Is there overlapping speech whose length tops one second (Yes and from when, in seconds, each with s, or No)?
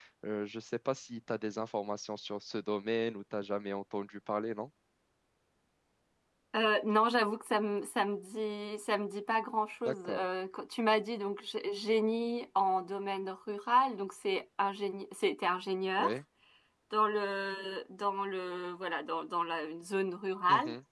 No